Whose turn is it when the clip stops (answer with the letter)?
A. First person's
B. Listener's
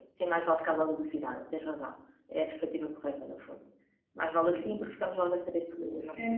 B